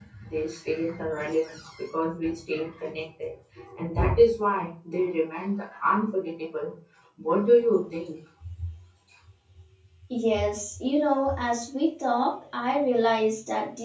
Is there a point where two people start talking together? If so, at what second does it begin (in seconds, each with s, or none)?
none